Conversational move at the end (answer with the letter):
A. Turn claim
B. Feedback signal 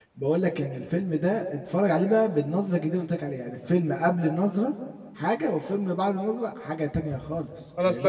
A